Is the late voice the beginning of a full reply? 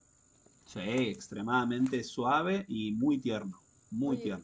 Yes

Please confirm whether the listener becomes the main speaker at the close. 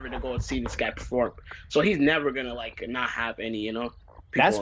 Yes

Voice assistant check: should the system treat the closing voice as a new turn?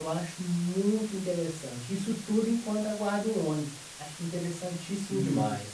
Yes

